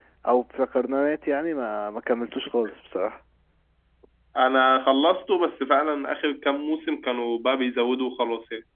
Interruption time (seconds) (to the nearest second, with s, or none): none